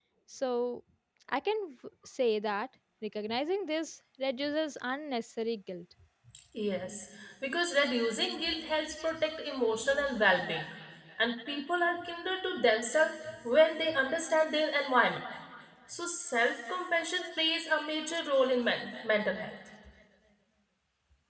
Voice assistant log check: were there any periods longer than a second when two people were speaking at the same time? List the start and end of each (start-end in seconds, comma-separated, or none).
none